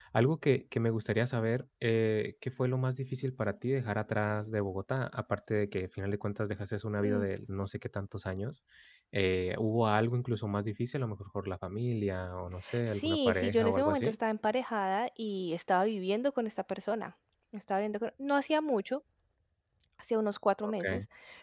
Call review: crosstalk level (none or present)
present